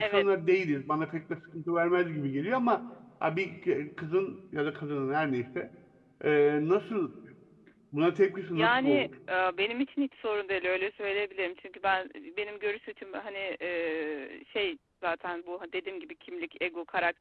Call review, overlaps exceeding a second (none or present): none